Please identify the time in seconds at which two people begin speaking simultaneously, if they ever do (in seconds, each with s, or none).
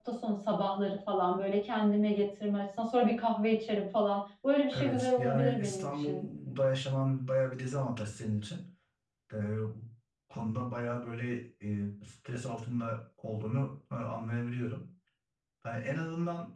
4.7 s